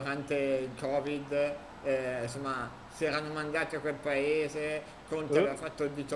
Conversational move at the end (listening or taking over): listening